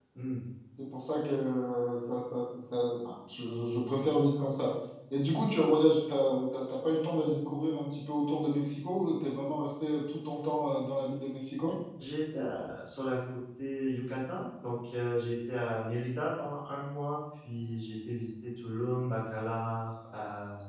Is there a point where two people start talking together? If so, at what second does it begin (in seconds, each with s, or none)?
none